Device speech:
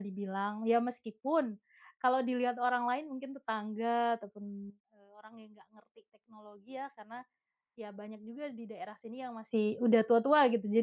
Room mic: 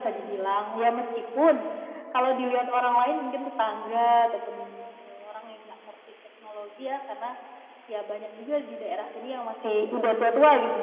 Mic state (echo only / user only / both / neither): echo only